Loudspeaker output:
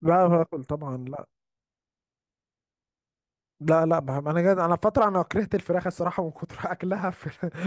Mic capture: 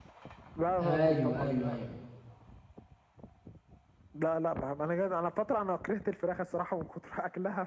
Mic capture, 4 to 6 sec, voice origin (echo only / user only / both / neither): echo only